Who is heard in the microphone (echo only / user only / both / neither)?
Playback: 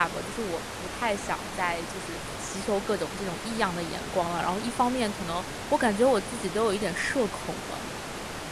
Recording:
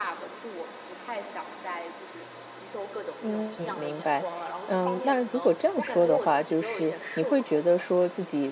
both